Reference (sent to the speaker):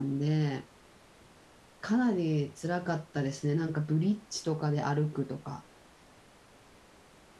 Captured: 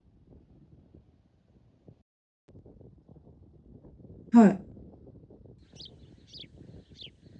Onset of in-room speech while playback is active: 4.3 s

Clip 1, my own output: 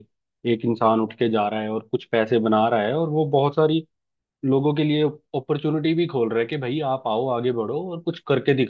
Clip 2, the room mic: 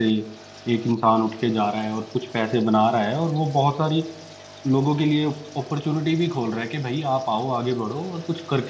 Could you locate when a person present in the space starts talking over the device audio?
none

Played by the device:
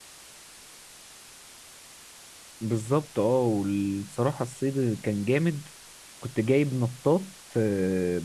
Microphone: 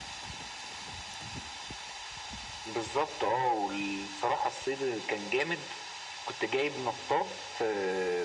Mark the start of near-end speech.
none

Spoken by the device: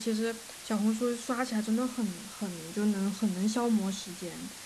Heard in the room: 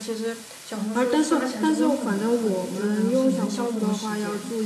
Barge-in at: 0.9 s

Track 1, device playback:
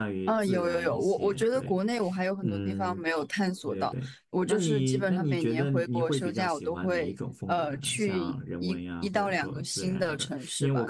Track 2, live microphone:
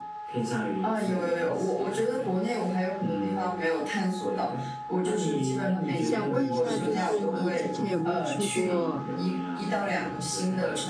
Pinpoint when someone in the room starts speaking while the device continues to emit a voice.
6.0 s

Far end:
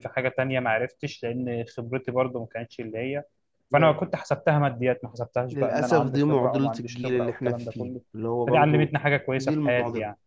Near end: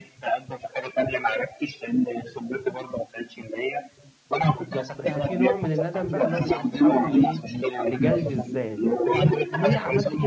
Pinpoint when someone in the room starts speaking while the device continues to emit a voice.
4.5 s

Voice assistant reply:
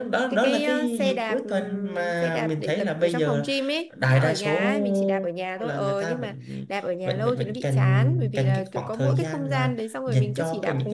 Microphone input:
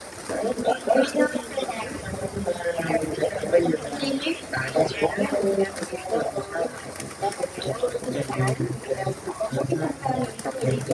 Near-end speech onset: none

